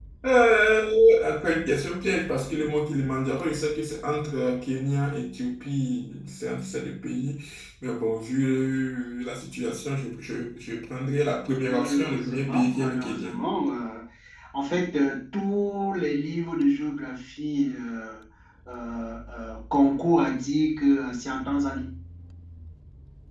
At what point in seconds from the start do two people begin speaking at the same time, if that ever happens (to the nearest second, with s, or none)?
12 s